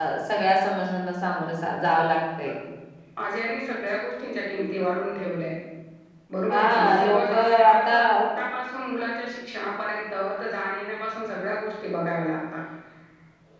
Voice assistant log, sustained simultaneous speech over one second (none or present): present